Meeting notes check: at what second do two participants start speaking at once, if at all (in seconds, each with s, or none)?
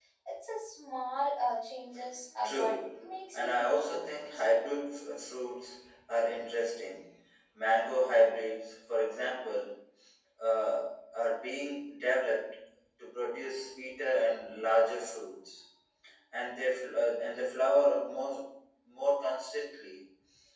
2.4 s